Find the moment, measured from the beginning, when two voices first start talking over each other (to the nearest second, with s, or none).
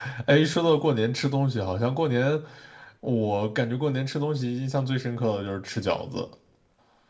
none